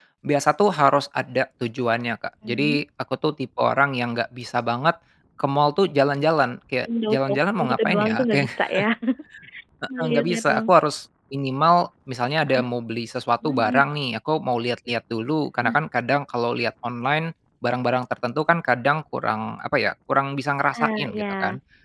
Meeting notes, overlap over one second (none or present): present